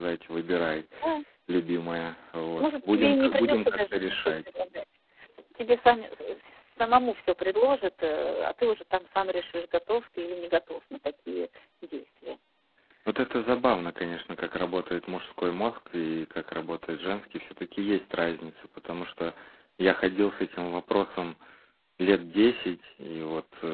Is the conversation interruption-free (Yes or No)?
No